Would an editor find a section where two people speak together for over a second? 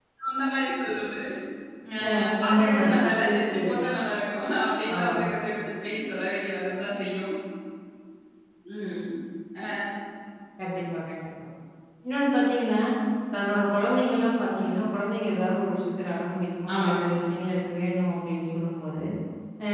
Yes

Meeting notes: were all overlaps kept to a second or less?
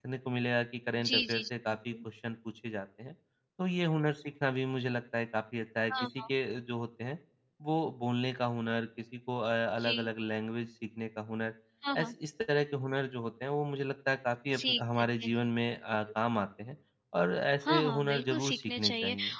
No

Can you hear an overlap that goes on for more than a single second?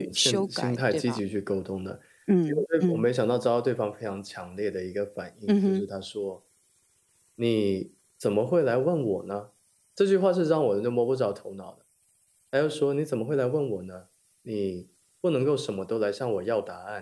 Yes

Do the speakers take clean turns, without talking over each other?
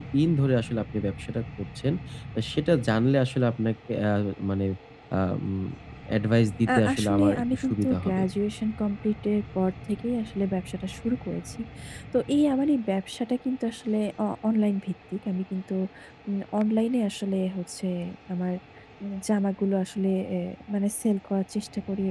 No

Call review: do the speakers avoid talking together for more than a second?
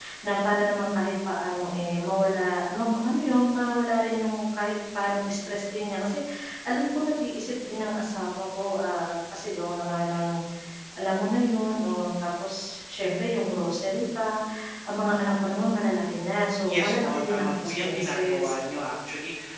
No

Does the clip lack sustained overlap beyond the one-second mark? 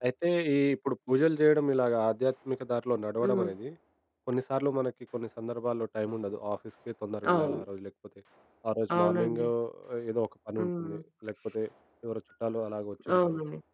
Yes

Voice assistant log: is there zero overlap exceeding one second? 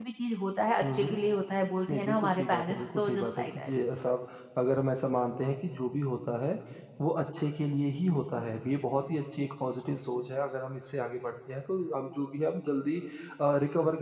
No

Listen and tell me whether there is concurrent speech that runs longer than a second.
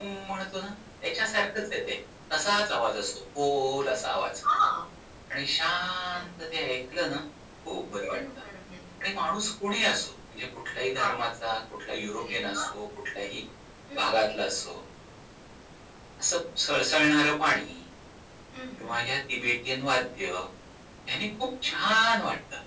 No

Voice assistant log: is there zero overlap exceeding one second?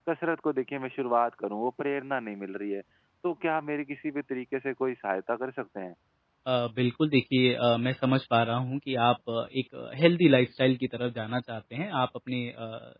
Yes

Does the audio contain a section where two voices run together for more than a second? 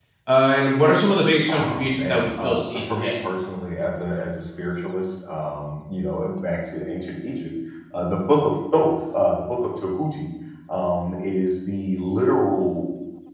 Yes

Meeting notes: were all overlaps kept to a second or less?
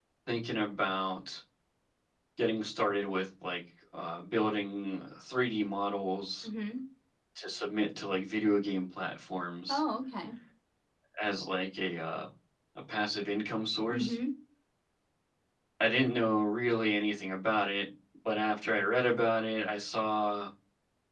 Yes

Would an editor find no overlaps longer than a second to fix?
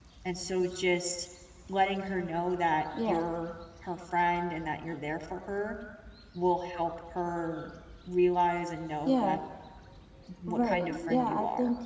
No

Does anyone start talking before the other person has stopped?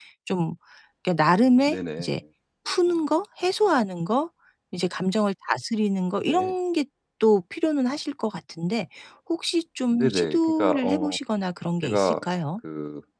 Yes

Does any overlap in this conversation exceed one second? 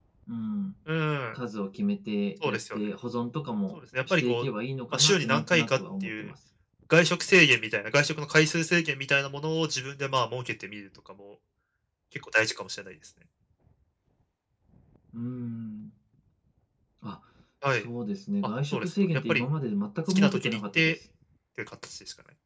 Yes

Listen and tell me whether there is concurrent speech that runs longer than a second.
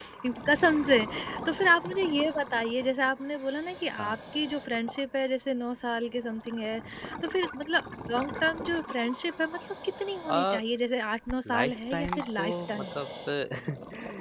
Yes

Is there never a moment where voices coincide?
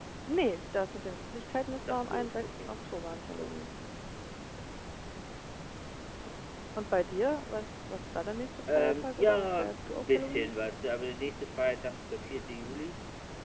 No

